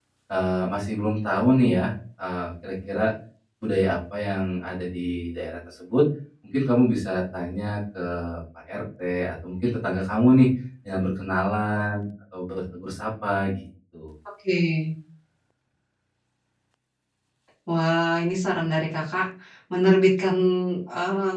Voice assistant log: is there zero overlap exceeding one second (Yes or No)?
Yes